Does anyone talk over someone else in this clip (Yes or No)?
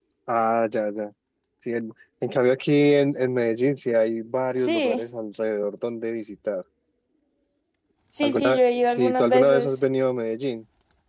Yes